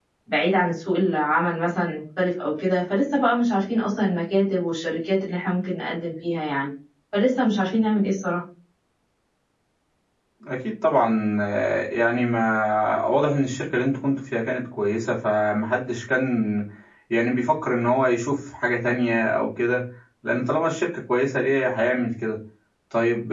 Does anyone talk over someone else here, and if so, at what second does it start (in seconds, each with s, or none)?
none